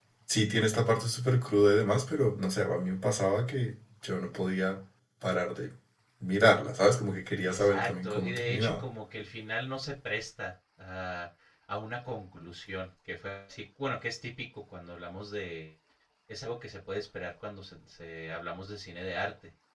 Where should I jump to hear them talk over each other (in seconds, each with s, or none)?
7.5 s